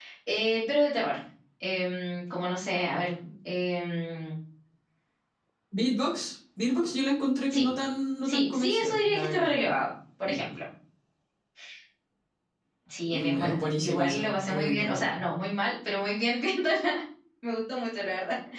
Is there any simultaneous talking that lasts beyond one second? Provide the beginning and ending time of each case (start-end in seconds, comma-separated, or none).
8.2-9.6, 13.1-15.1